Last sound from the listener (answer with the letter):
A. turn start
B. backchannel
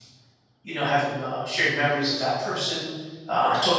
B